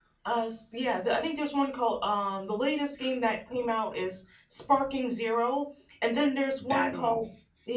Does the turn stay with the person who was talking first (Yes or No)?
Yes